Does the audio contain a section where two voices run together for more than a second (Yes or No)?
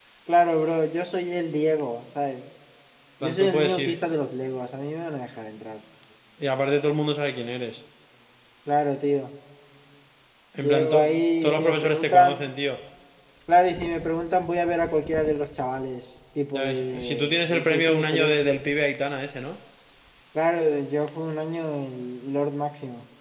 Yes